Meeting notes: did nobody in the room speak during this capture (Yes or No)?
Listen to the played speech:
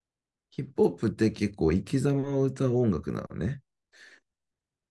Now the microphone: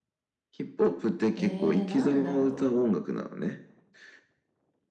No